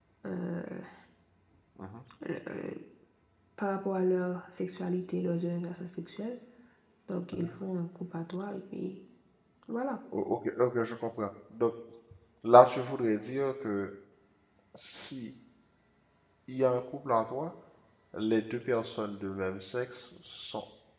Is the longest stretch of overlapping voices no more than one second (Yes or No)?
Yes